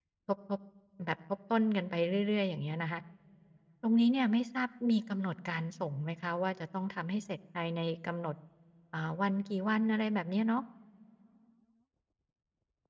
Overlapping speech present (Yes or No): No